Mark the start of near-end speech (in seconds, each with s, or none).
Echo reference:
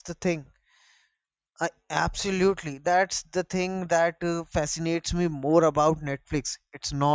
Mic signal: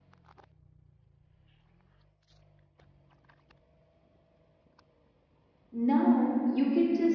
5.7 s